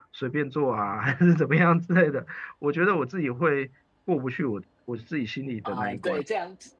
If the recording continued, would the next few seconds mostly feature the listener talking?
Yes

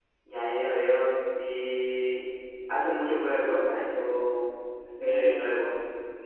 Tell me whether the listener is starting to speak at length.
Yes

